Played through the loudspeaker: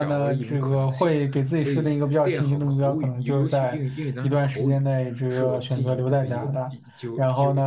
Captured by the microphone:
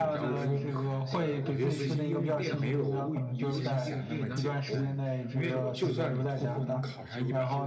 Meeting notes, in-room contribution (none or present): present